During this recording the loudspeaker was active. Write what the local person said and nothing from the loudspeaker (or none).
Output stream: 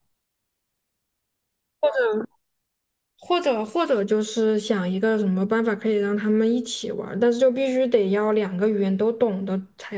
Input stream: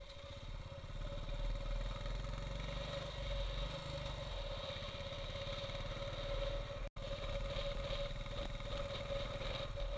none